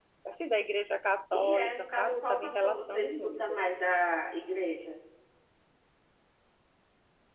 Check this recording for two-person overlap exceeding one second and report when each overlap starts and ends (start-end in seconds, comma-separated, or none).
1.3-3.6